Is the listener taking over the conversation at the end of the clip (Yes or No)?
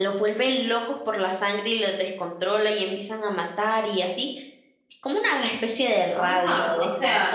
Yes